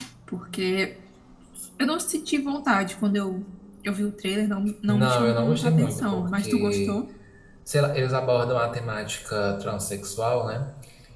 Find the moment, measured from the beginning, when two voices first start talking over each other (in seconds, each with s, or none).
4.9 s